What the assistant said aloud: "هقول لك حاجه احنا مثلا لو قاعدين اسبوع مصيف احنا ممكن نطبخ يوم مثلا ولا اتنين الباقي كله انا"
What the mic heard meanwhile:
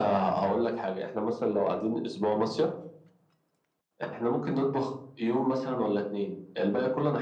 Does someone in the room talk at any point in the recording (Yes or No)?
No